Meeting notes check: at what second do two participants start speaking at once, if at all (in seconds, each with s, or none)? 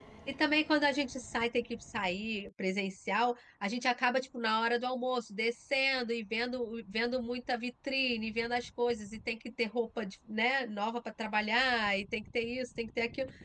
none